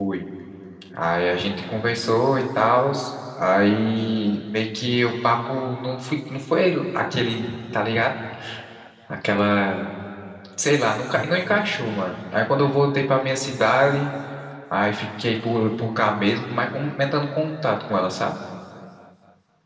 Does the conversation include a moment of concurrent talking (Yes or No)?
No